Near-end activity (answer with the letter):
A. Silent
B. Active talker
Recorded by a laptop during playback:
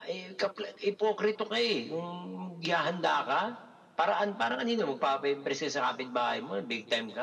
A